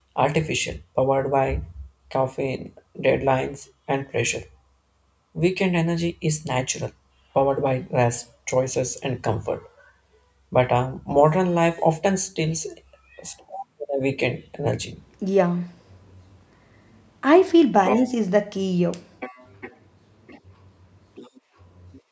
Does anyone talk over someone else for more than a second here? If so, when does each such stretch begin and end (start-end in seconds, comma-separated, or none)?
none